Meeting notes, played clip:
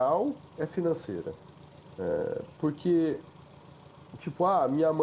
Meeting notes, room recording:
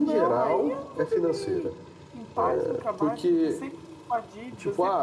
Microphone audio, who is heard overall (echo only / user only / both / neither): both